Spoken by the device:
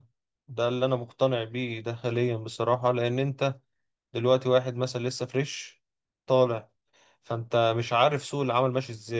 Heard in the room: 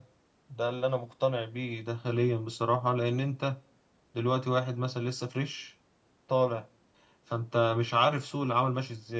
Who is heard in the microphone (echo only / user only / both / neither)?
echo only